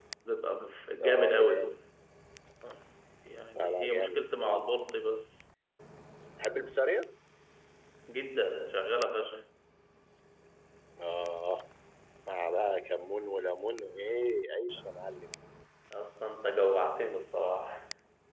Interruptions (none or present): present